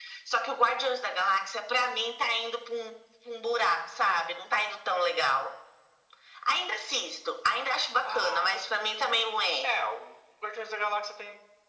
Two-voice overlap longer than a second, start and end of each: 8.0-9.6

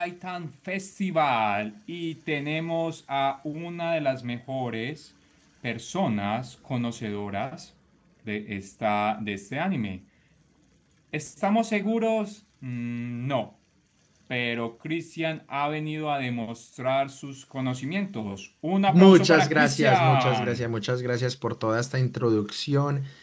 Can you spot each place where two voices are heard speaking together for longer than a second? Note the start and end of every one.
18.9-20.7

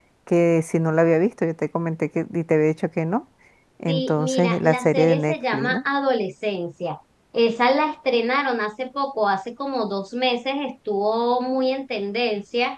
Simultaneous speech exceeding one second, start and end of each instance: 3.9-5.8

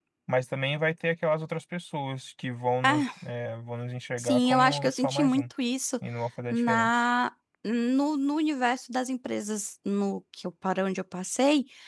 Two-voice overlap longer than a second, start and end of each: 4.2-5.4

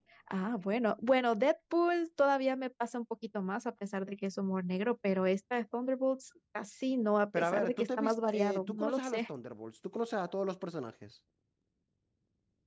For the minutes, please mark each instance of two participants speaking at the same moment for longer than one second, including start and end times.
7.4-9.2

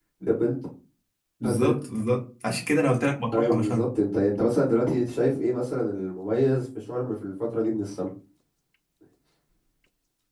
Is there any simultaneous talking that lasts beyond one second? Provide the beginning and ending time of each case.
none

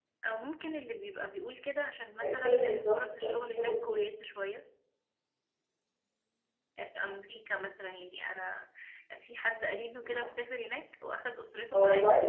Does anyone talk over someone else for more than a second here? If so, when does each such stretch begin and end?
2.2-4.0

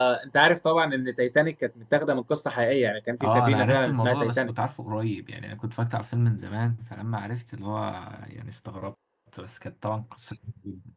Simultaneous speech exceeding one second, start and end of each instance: 3.2-4.5

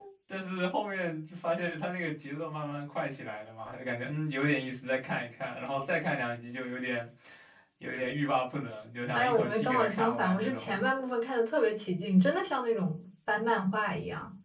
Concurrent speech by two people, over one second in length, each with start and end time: 9.1-10.8

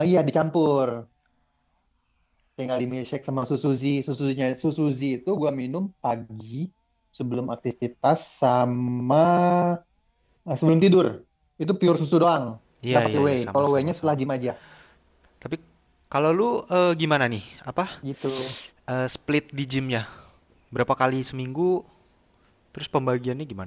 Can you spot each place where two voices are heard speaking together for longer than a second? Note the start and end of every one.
12.9-14.2

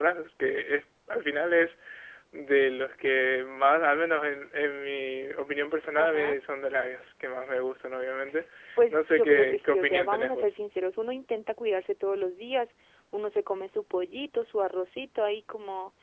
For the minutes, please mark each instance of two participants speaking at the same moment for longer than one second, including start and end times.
8.9-10.5

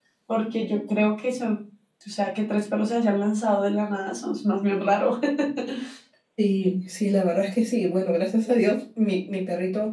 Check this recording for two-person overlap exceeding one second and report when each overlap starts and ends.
none

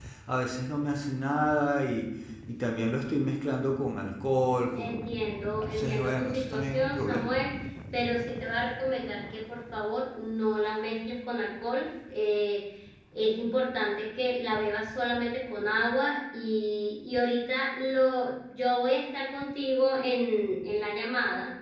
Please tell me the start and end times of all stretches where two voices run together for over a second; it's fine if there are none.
4.8-7.5

